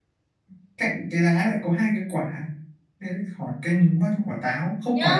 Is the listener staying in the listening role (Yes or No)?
No